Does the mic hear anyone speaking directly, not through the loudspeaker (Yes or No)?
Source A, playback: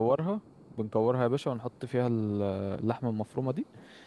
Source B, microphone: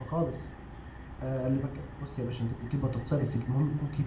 Yes